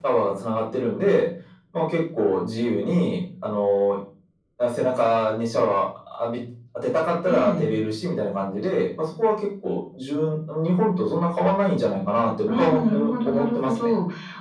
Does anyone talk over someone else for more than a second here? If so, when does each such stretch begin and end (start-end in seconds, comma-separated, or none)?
12.5-13.7